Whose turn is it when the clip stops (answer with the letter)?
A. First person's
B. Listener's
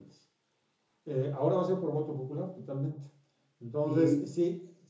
A